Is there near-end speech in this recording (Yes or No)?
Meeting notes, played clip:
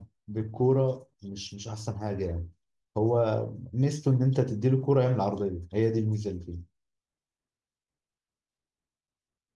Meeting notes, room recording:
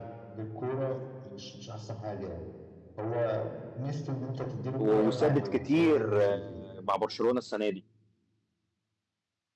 Yes